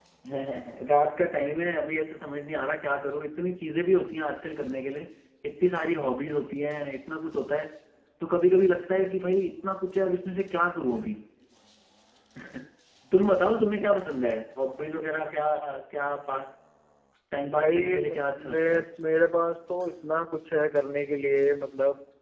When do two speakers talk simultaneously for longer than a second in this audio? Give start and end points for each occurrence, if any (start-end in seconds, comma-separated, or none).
17.5-18.8